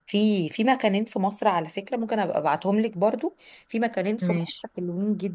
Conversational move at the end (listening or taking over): listening